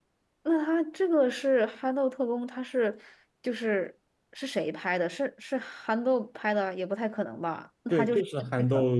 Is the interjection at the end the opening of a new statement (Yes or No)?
Yes